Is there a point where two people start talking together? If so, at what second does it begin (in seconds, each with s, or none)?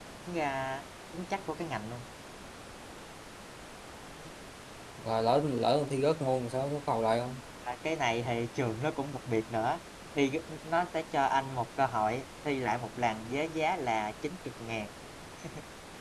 none